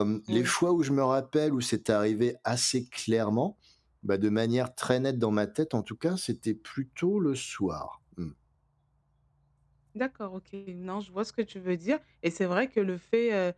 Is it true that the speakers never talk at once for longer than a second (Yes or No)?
Yes